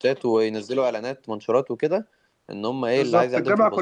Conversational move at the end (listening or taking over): taking over